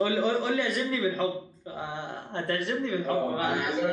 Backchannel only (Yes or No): No